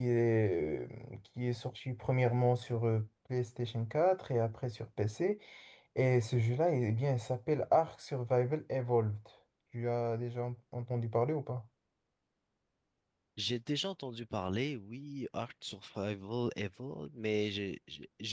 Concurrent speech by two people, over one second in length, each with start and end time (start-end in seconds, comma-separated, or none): none